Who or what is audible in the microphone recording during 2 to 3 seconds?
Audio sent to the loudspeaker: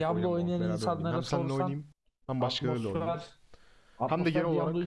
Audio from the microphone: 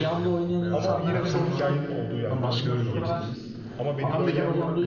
both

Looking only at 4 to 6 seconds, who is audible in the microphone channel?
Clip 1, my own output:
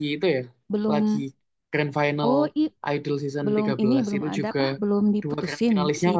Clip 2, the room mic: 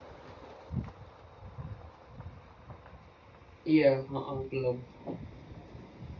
user only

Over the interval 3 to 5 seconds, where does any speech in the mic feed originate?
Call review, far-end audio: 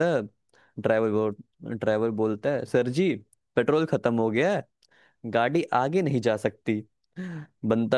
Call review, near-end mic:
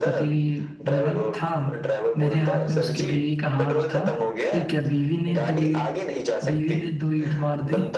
both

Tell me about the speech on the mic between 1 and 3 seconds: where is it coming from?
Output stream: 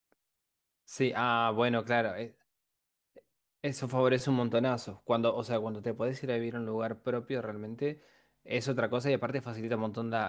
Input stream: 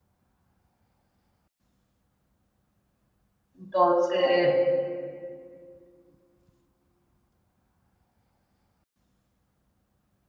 neither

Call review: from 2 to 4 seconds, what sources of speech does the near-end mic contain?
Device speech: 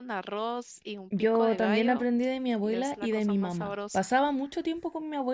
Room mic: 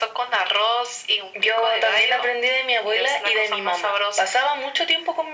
echo only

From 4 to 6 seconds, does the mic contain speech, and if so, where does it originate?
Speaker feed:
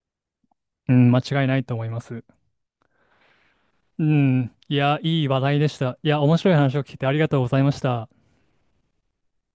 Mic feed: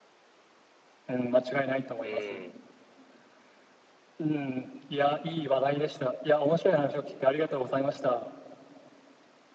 echo only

